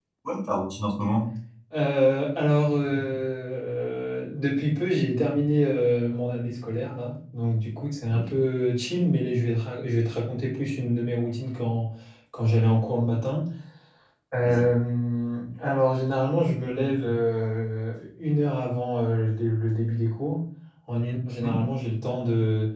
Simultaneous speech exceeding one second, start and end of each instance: none

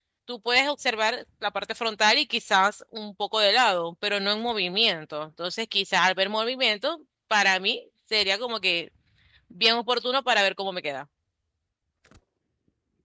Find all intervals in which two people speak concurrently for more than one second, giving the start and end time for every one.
none

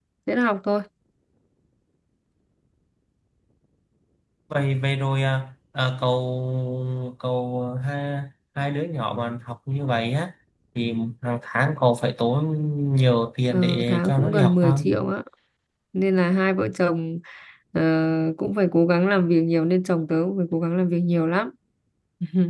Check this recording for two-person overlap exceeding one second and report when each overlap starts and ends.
13.5-14.9

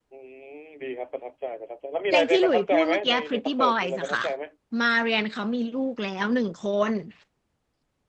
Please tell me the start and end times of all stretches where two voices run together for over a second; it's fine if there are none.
2.1-4.2

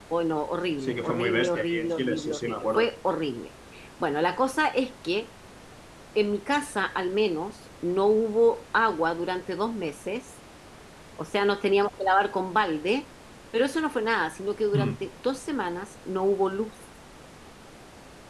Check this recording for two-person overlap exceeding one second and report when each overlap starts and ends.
0.8-2.9

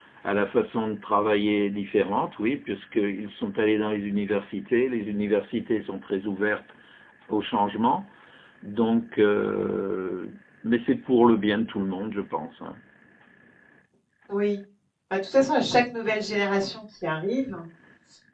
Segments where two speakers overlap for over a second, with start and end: none

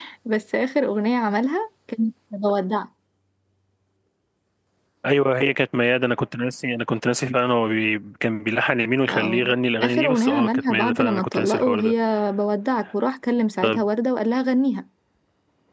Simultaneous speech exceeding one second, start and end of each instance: 9.8-11.9

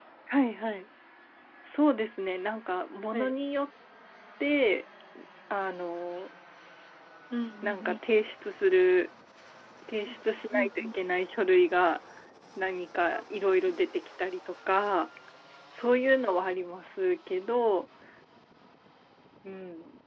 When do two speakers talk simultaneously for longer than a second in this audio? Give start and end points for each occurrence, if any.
none

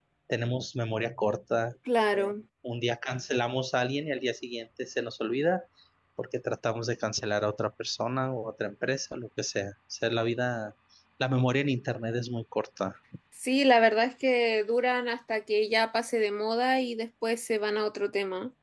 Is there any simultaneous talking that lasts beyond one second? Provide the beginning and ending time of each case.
none

